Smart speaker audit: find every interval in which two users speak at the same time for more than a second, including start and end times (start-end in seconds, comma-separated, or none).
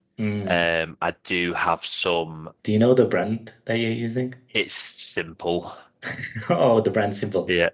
none